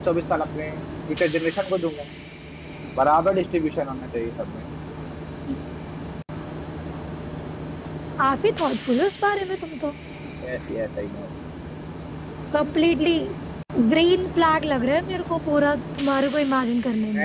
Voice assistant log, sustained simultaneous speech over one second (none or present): none